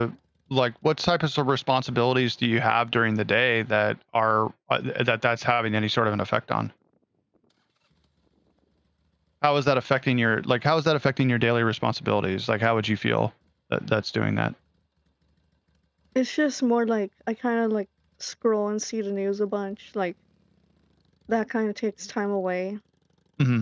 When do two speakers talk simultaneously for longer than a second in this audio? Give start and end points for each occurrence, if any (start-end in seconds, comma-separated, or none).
none